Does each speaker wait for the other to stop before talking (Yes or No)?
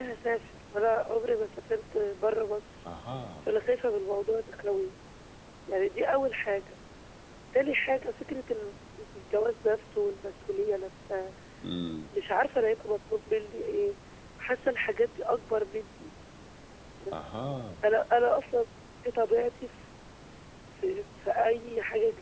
Yes